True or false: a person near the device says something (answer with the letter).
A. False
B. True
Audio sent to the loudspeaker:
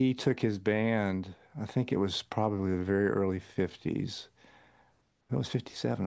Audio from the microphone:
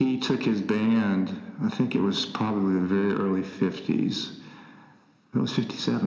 A